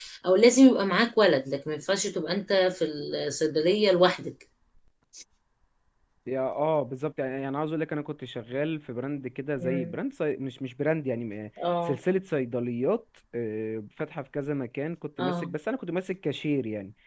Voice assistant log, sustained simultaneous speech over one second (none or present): none